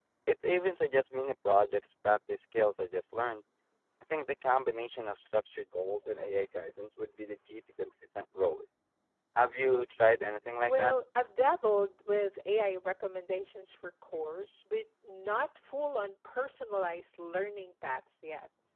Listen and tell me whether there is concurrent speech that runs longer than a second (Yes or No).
No